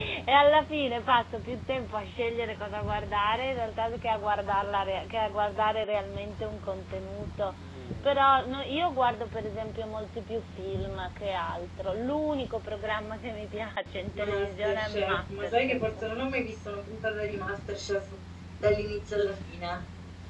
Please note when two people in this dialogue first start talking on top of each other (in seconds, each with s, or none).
14.1 s